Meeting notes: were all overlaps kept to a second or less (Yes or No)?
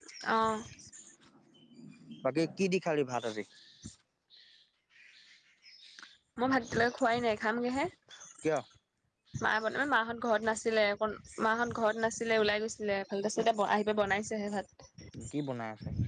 Yes